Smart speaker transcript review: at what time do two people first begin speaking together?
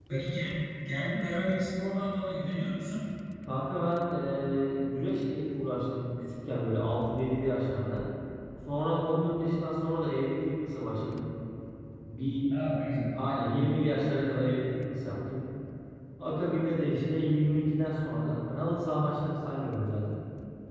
none

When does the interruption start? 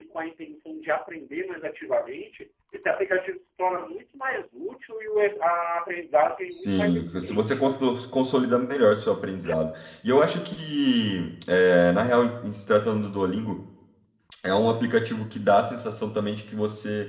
6 s

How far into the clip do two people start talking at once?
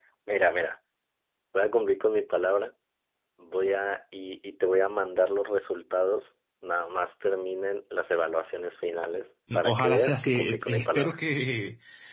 10 s

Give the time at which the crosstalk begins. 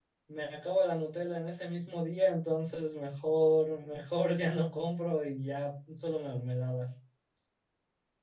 none

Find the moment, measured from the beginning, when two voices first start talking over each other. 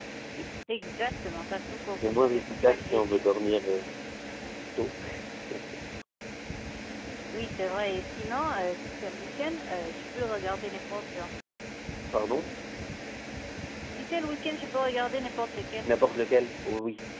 2 s

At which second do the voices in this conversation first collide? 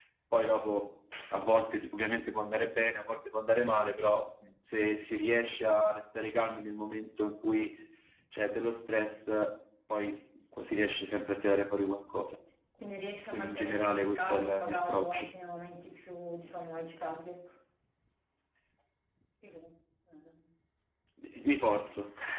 13 s

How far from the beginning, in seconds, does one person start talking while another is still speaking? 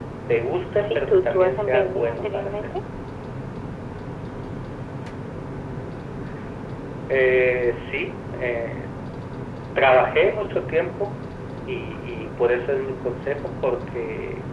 1 s

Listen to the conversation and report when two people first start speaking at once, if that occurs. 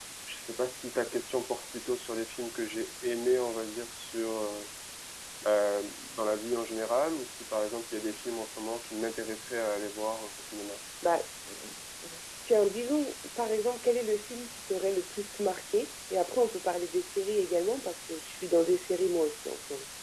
none

